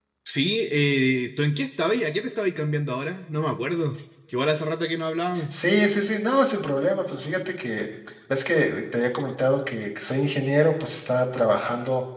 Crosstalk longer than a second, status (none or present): none